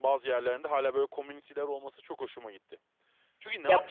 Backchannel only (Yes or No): Yes